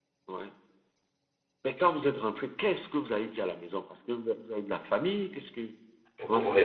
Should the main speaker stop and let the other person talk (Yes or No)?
Yes